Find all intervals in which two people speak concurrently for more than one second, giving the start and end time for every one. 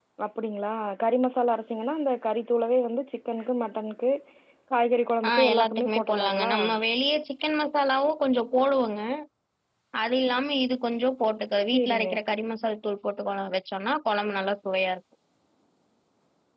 5.3-6.5

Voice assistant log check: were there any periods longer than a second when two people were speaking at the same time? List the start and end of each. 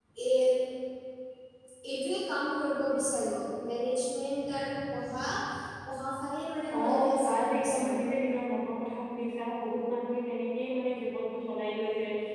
6.8-8.0

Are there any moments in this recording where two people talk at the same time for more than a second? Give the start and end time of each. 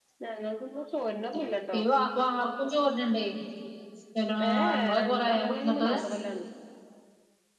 4.5-5.9

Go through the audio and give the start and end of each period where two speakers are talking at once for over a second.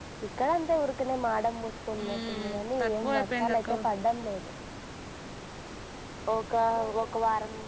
2.0-3.7

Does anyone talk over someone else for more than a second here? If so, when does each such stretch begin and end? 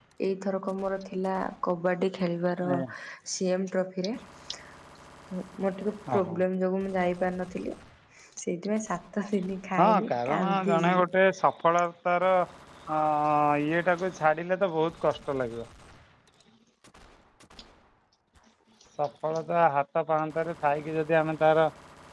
9.8-11.0

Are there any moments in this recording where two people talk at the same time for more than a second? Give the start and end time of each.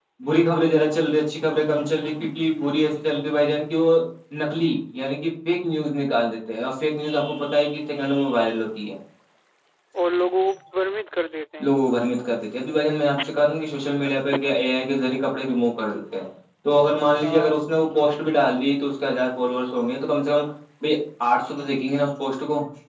none

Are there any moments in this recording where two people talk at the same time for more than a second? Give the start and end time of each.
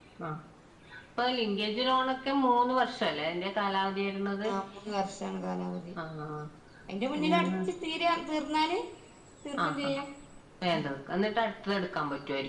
none

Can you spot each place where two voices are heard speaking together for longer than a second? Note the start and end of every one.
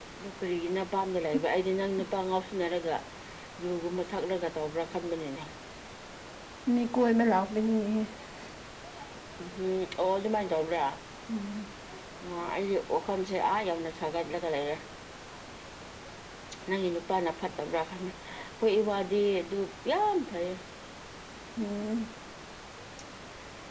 none

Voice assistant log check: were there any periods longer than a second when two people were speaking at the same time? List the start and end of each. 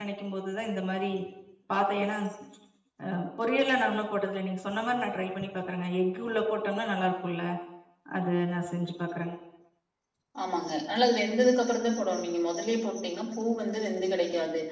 none

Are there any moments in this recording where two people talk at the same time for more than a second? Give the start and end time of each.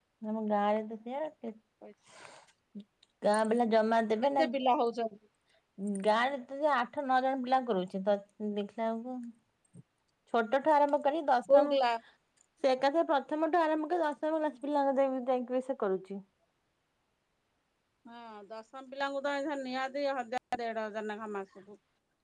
none

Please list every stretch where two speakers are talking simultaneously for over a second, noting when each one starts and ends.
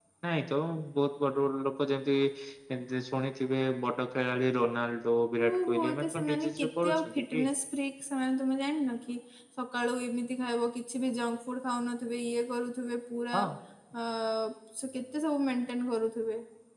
5.5-7.4

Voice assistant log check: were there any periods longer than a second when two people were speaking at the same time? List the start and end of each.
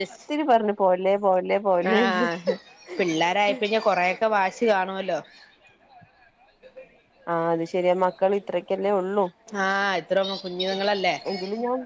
none

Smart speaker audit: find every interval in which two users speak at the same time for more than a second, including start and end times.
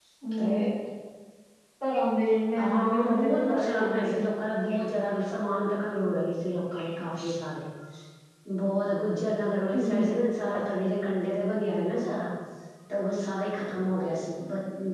2.6-4.1

